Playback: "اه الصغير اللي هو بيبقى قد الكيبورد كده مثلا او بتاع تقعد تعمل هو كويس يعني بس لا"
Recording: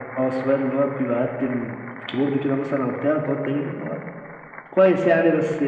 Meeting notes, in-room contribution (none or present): none